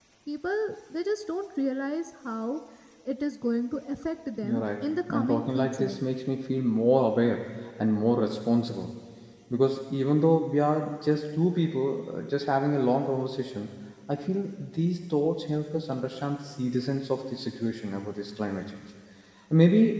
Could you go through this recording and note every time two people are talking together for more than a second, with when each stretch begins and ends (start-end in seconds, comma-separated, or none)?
4.4-5.9